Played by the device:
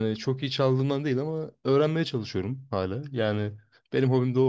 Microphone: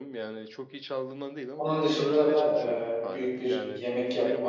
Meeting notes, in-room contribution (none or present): present